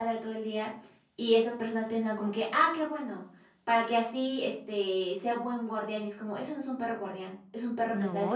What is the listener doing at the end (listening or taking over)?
listening